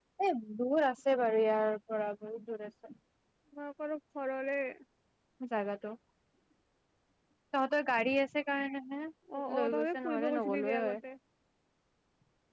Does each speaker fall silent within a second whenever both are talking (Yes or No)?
No